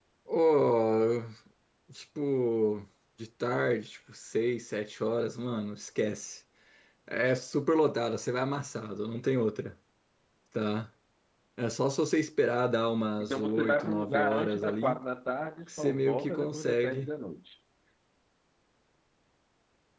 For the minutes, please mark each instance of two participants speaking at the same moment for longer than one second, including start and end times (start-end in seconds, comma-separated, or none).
13.2-15.0, 15.7-17.1